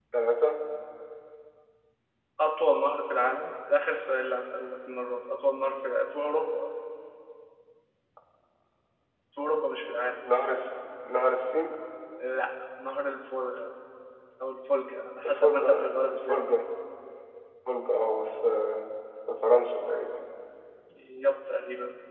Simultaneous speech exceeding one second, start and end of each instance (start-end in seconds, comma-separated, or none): 15.2-16.5